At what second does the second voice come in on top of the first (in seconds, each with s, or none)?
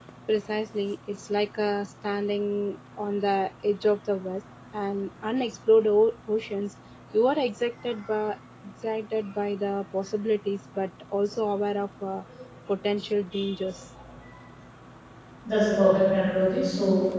none